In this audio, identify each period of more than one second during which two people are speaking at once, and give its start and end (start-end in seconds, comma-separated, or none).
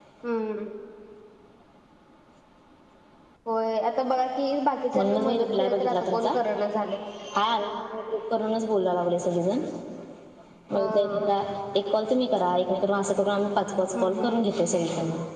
4.9-6.3